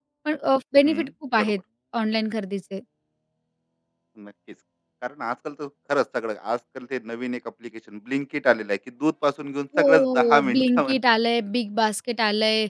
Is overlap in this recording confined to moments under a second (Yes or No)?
No